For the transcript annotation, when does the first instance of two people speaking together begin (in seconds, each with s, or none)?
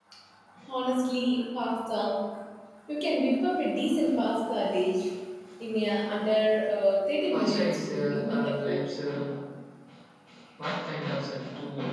7.3 s